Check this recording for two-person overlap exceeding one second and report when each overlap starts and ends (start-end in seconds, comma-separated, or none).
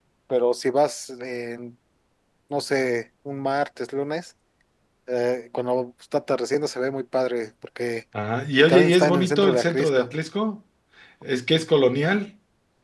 8.6-10.1